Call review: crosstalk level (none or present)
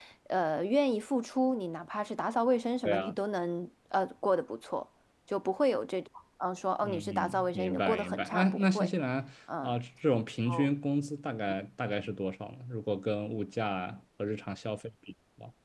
present